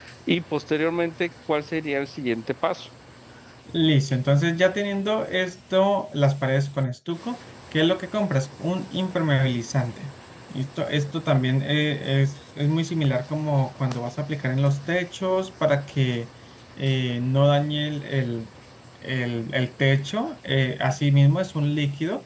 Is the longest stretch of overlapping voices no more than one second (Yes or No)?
Yes